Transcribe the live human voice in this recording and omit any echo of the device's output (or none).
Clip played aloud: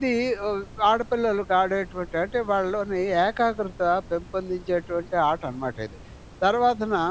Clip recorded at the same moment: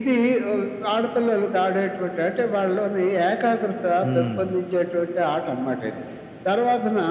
హ్మ్.